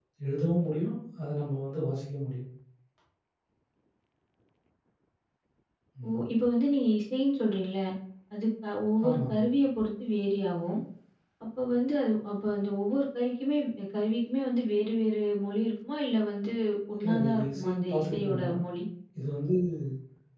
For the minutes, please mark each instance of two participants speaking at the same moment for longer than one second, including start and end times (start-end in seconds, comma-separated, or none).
17.0-18.5